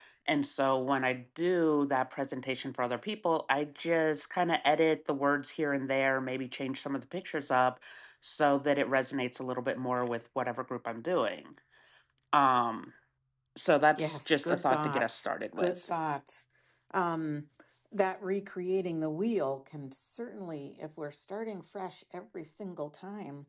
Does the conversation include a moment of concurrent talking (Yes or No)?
Yes